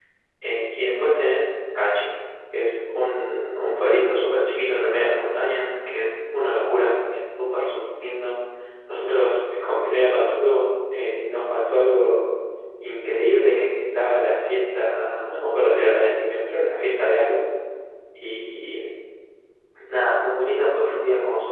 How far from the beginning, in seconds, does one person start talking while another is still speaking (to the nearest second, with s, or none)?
none